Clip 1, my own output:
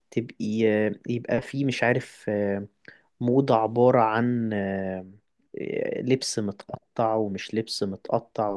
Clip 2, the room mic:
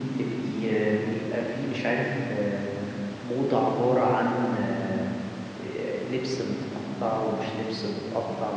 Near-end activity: none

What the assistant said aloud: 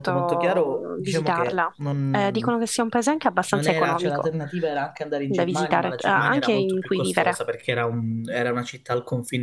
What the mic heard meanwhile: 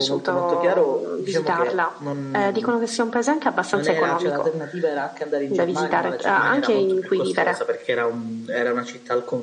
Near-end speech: none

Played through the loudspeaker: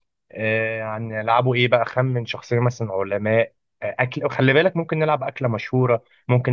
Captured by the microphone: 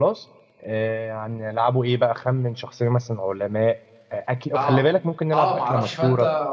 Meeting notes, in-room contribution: present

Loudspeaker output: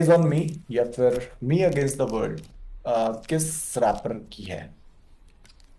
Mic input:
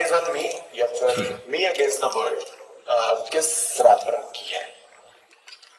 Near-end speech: present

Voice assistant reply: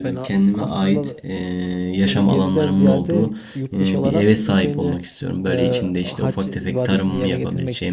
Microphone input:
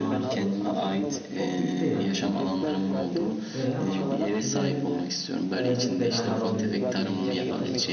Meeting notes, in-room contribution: present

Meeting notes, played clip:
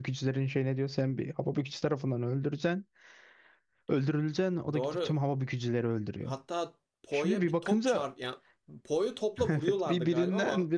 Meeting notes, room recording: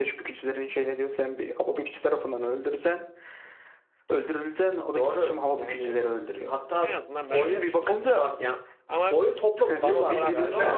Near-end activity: present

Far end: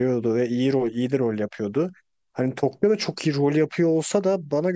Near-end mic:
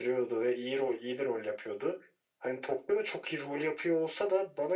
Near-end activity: none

